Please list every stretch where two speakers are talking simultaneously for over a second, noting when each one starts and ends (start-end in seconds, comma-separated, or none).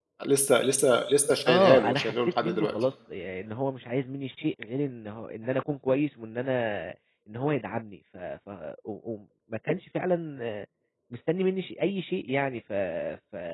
1.5-2.7